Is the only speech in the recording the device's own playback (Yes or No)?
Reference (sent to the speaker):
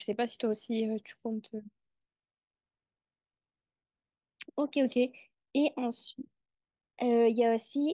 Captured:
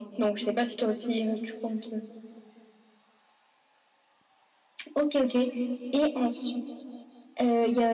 Yes